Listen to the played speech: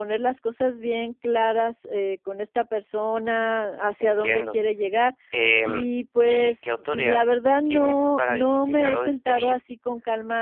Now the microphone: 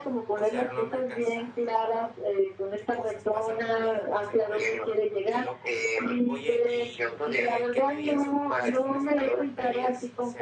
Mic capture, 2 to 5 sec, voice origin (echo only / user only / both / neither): both